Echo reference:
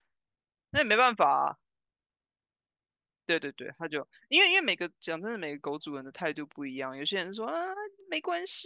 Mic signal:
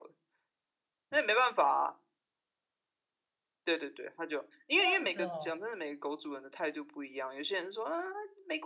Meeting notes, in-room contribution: present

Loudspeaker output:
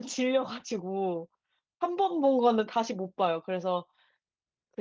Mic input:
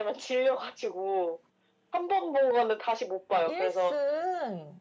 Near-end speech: present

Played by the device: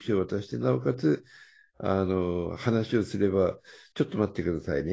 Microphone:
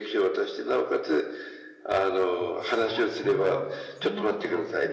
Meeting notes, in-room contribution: present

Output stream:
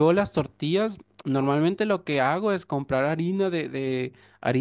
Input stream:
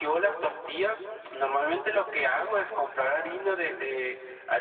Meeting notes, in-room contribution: none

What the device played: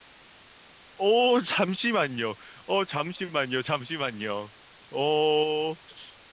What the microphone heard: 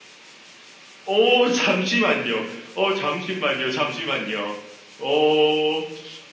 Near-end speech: none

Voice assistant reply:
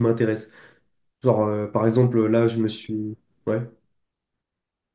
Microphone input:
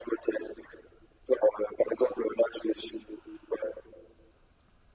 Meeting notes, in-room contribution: none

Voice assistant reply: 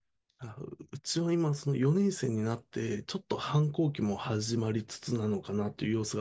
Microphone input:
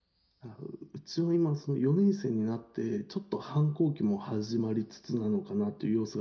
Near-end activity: none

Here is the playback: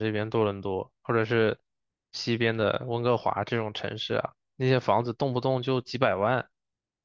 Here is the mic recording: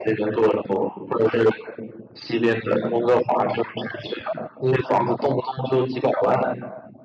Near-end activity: none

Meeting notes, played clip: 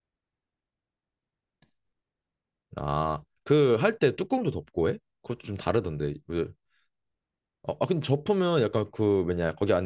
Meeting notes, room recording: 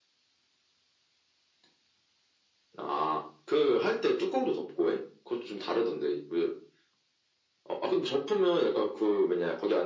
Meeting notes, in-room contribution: none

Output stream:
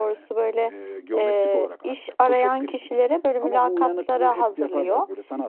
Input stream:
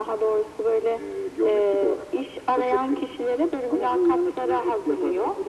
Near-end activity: none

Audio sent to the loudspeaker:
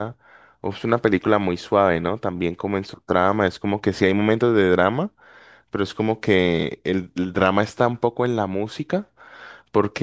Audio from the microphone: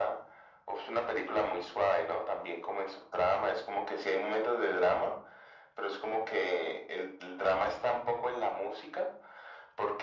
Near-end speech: none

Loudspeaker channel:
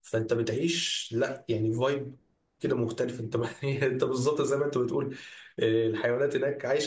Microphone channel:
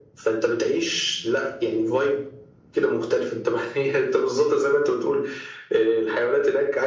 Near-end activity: none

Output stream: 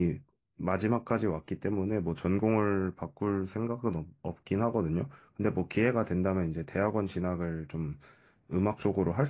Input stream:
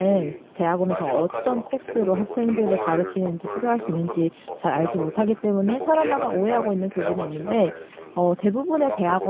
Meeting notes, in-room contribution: present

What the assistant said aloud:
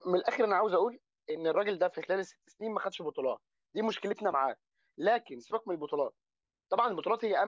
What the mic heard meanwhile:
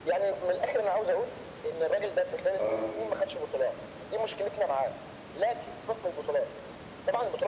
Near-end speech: present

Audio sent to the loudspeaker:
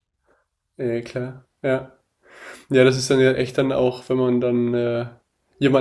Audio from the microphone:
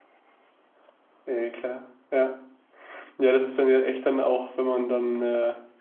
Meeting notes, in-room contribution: none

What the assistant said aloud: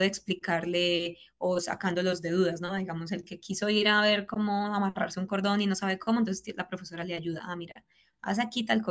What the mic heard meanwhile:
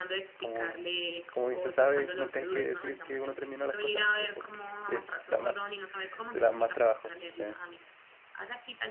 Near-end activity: present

